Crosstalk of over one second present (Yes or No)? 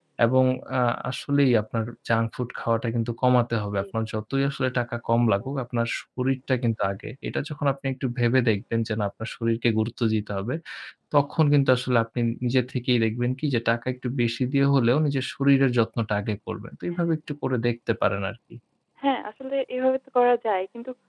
No